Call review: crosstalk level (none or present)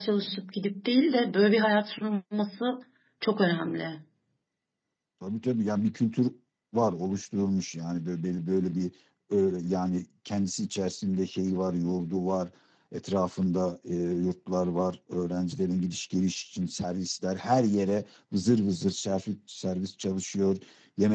none